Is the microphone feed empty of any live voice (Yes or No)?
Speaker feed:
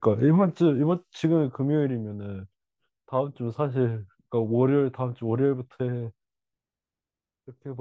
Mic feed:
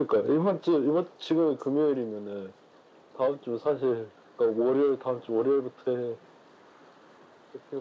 Yes